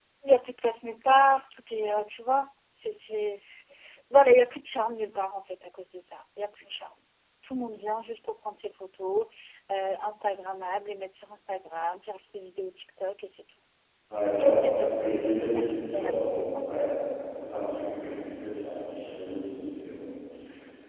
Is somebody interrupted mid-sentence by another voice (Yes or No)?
Yes